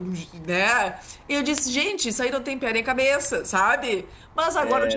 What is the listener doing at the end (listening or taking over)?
listening